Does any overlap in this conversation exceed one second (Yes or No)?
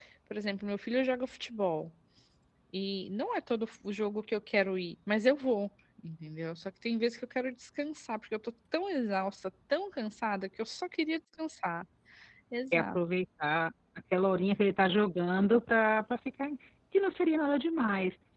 No